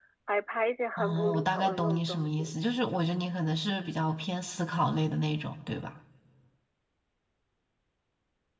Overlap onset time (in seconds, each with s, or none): 1.0 s